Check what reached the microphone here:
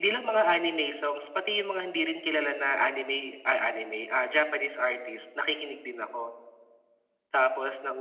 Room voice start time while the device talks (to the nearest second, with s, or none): none